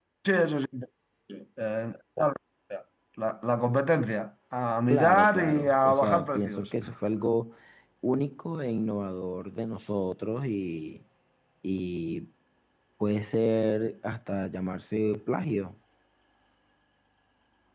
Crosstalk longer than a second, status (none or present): present